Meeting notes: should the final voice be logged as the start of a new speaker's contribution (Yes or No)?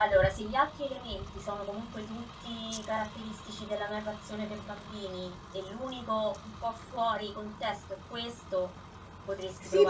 Yes